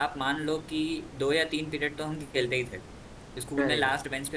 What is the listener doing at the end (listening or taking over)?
listening